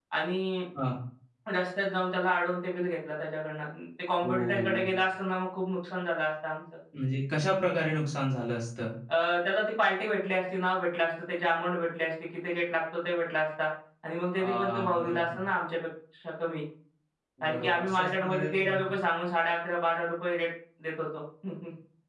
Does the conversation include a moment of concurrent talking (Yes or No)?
Yes